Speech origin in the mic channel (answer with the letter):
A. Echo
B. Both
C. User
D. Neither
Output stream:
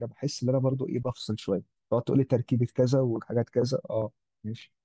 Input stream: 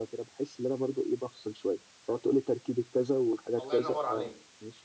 B